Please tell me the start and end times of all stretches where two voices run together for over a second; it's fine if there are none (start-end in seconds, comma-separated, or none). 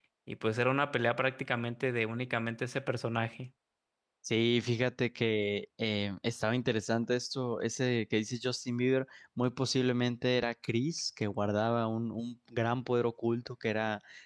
none